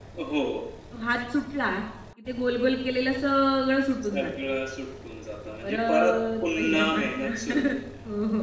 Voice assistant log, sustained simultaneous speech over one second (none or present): present